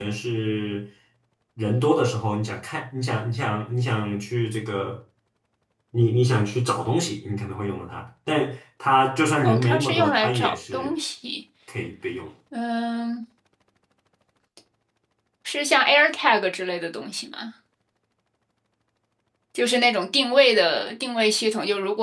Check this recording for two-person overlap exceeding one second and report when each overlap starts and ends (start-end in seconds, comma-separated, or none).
9.4-10.9